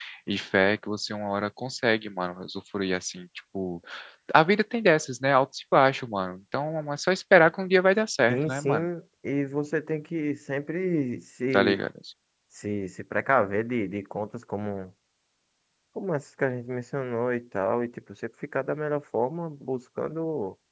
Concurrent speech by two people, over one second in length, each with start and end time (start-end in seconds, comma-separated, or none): none